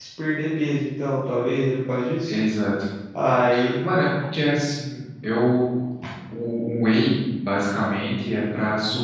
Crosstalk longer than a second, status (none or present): none